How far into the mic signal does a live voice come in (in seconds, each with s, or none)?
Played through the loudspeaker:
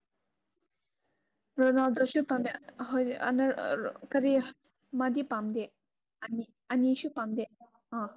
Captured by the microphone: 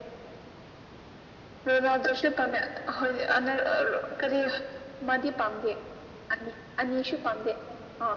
none